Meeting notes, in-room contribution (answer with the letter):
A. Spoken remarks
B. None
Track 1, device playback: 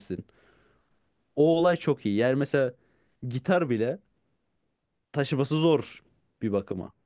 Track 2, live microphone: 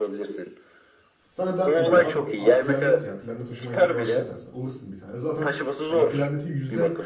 A